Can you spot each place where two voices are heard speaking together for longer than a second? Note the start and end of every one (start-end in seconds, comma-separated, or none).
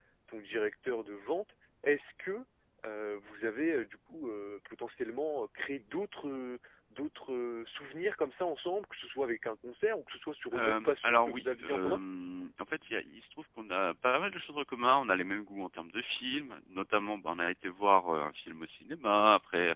10.5-12.0